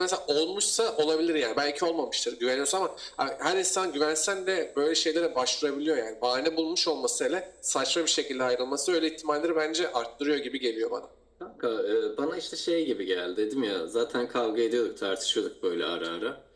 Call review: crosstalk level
none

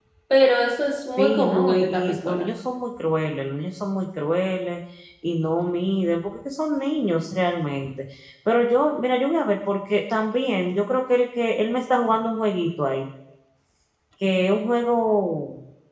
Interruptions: present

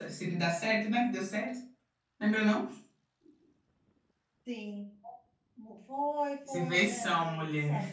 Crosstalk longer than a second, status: present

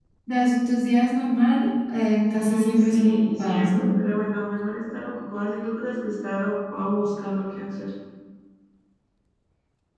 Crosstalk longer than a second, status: present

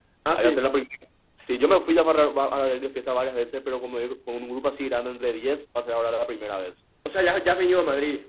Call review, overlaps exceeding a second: none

